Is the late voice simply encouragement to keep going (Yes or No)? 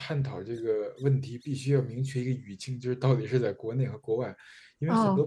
Yes